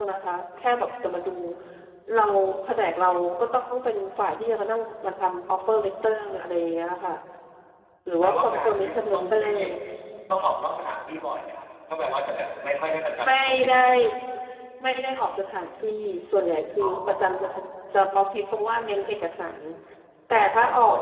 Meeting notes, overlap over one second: present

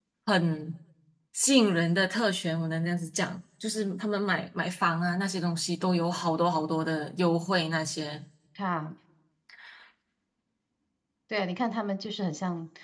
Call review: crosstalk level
none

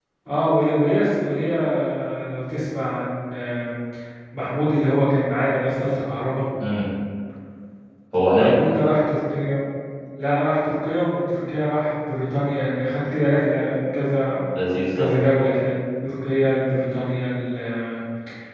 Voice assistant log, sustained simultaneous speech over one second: none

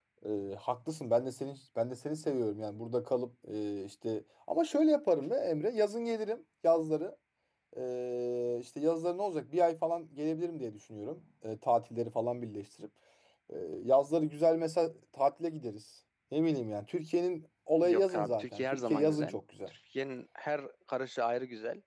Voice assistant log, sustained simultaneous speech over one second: present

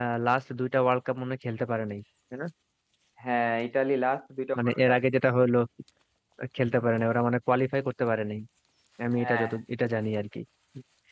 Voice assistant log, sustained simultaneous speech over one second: none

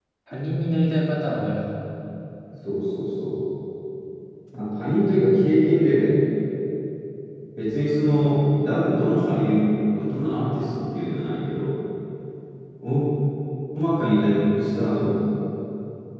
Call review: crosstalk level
none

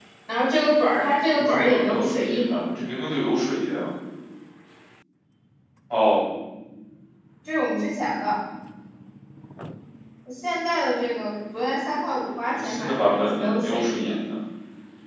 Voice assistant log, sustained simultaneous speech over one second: present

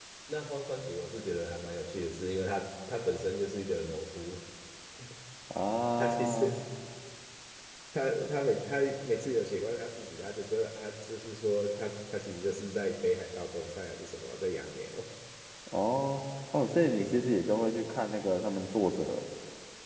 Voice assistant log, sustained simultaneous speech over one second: none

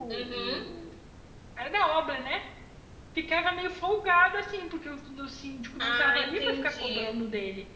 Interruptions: present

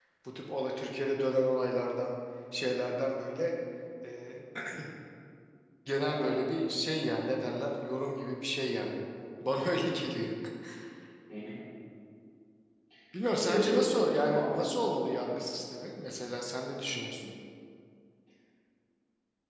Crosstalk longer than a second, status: present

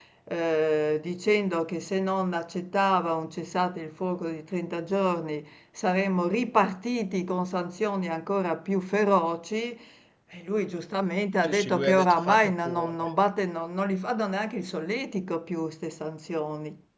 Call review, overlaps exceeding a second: present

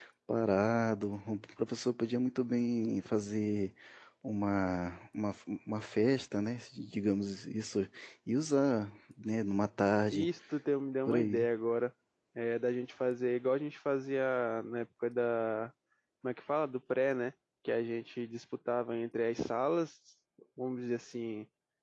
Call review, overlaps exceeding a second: none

